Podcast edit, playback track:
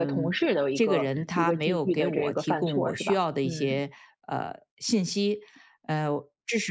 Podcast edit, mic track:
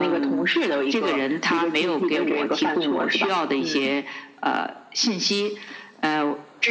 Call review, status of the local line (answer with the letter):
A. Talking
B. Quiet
B